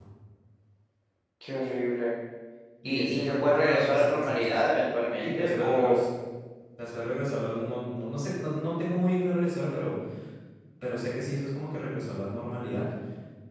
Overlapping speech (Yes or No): Yes